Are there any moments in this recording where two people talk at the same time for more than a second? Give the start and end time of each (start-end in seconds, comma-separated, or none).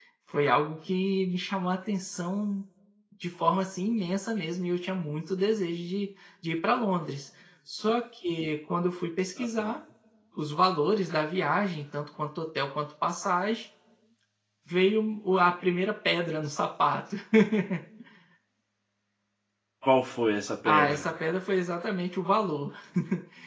none